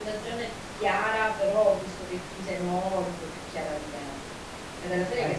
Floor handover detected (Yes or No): No